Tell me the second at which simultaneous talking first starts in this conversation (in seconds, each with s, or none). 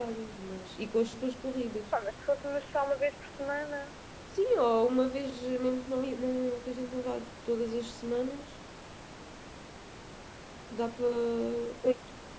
none